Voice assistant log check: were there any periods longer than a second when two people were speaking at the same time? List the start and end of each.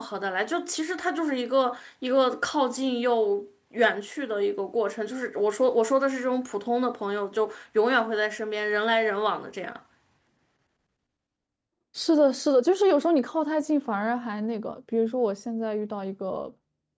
none

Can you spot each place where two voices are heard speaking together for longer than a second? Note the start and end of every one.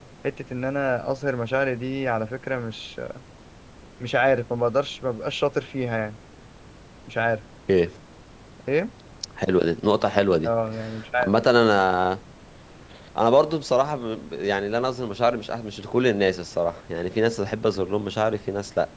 none

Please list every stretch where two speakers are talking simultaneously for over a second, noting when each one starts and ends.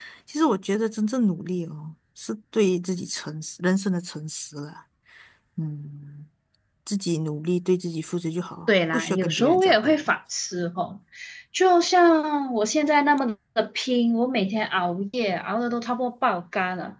8.7-10.1

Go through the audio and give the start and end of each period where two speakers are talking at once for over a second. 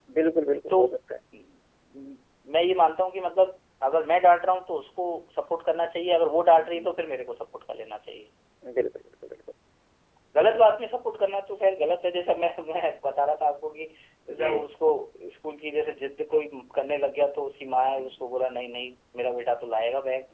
none

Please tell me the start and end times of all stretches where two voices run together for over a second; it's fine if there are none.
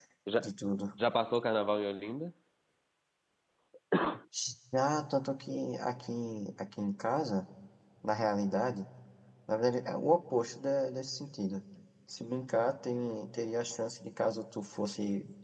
none

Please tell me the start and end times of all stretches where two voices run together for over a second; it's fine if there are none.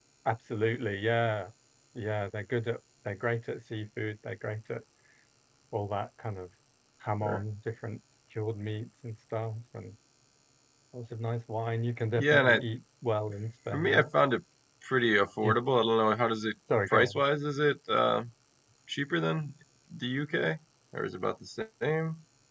none

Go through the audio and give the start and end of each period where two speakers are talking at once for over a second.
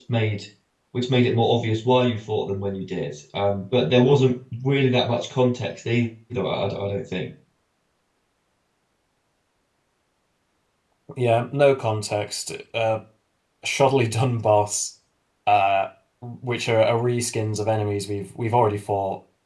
none

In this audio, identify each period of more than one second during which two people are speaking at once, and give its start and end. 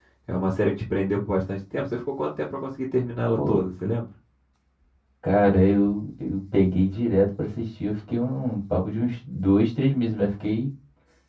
none

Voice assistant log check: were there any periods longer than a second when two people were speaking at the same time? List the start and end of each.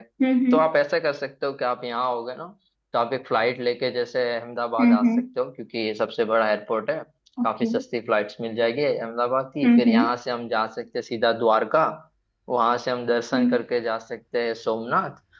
none

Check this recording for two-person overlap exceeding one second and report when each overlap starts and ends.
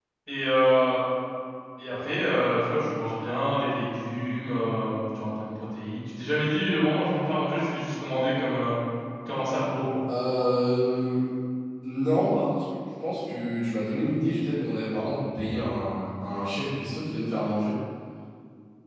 none

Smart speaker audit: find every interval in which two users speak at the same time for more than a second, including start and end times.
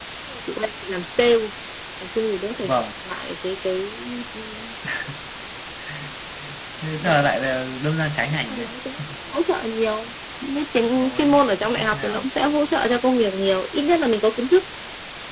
10.9-12.3

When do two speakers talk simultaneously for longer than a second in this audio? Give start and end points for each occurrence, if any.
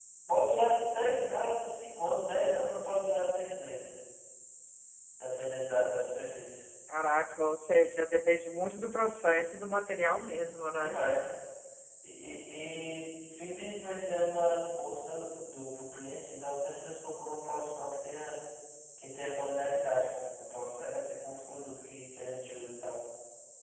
none

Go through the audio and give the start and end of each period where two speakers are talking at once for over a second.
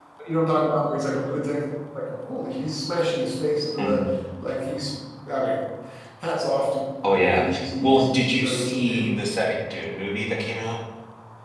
7.1-9.1

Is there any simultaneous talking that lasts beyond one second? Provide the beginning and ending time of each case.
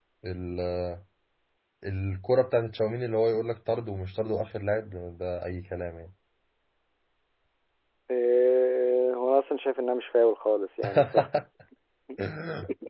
none

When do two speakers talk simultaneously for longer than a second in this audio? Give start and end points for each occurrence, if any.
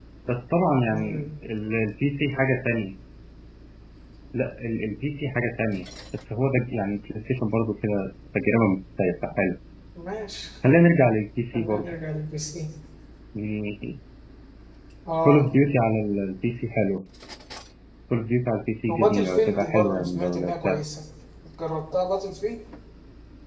18.9-20.8

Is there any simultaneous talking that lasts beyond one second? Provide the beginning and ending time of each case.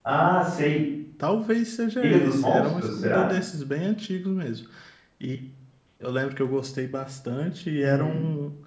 2.0-3.3

